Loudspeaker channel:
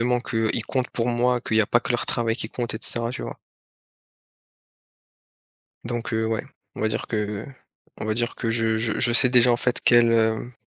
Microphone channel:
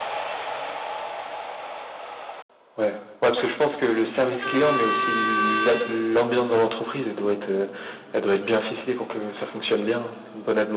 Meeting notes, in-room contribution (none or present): present